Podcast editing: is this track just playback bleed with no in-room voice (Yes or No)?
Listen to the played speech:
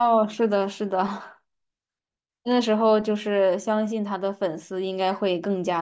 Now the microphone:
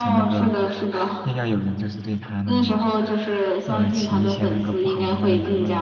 No